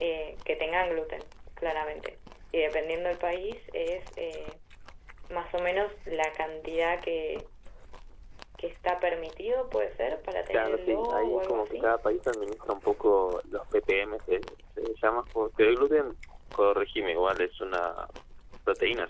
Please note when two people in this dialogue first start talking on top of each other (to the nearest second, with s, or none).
11 s